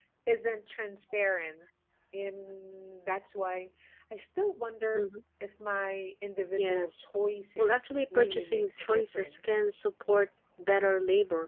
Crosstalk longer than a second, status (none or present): present